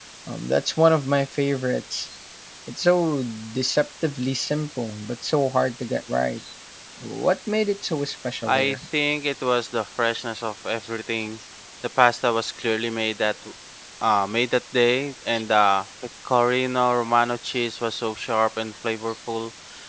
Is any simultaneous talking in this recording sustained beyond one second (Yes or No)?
No